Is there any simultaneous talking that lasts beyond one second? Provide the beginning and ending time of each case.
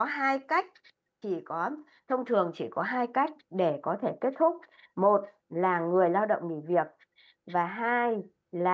none

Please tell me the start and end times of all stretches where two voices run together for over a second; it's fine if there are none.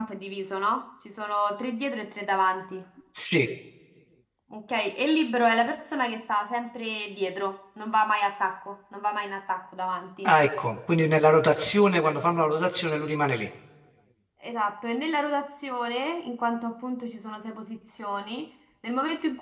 none

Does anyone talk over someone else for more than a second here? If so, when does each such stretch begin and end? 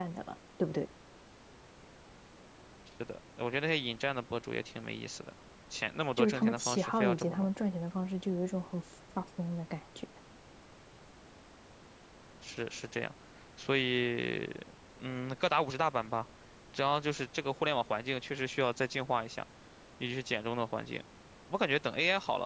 6.2-7.5

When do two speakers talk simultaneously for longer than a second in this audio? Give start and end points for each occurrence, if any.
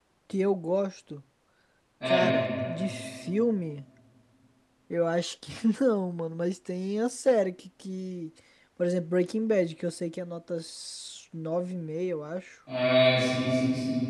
none

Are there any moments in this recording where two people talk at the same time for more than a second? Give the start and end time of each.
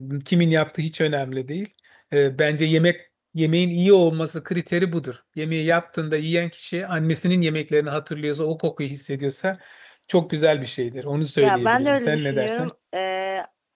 11.4-12.7

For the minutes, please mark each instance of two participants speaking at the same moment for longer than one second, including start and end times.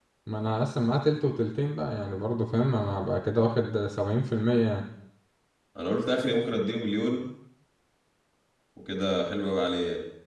none

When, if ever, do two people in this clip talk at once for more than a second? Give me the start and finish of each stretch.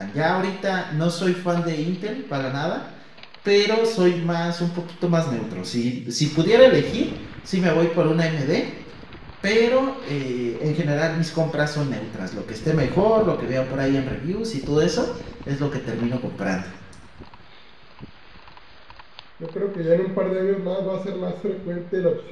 none

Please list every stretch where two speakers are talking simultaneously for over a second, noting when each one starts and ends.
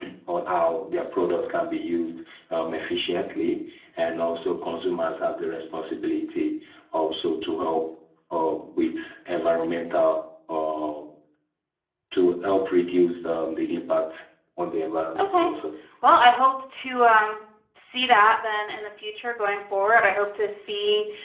none

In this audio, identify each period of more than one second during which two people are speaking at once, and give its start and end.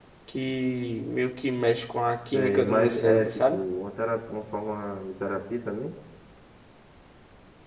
2.3-3.6

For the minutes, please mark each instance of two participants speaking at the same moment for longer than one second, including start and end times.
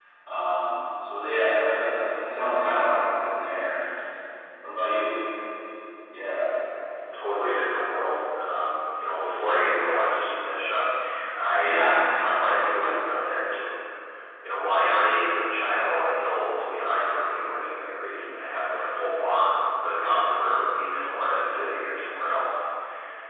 none

